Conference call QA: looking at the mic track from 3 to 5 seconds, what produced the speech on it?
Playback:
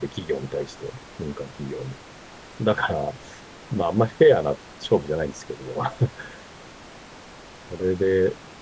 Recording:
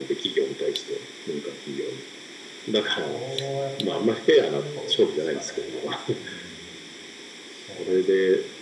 both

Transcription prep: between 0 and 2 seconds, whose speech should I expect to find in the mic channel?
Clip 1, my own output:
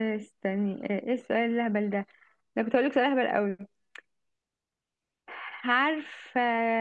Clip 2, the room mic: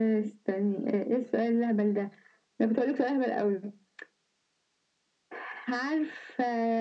echo only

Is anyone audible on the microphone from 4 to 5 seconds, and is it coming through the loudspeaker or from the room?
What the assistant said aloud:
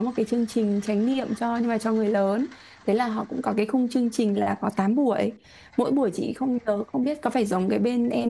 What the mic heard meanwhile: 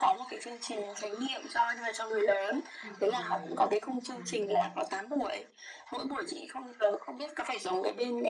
both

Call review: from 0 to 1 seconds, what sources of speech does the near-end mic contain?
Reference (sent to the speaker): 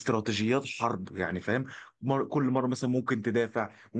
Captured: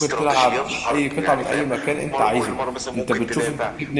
both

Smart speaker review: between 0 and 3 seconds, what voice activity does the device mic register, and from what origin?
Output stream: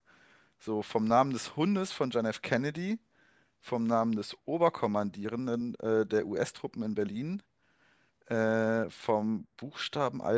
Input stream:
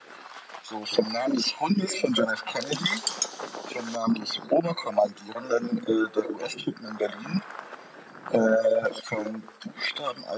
echo only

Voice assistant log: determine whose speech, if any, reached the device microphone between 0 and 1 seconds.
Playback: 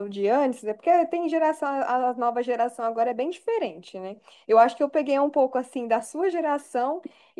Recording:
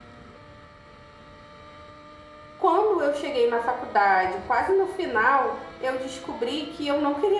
neither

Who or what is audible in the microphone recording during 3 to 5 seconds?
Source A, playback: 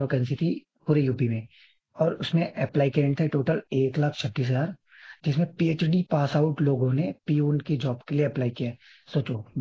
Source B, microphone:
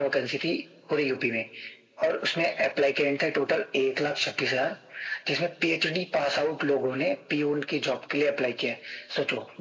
echo only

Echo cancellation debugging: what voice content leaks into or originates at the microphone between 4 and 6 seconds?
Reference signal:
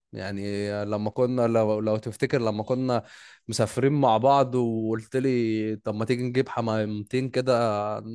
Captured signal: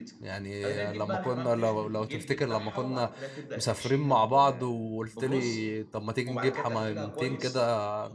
both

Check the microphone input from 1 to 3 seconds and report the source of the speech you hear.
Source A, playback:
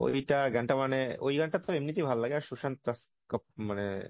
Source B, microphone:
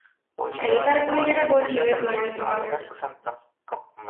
both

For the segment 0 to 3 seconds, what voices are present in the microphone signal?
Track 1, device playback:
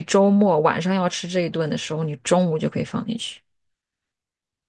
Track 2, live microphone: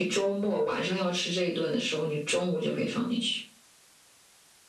echo only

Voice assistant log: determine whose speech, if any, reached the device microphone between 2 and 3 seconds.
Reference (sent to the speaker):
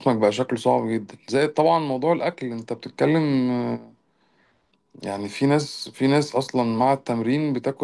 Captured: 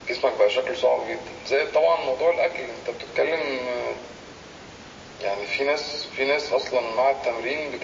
echo only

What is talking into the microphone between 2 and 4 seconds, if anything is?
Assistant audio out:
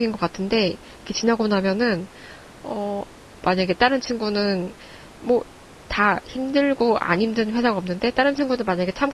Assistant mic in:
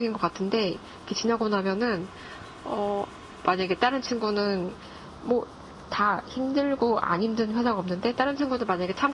echo only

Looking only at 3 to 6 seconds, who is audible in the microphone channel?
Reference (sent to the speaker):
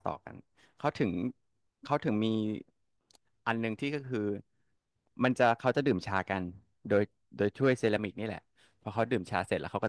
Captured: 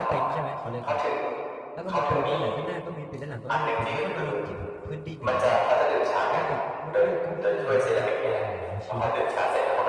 both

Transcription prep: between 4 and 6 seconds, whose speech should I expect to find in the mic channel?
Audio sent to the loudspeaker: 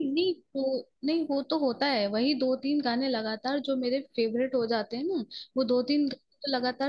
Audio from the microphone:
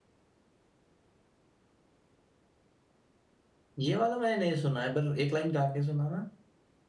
user only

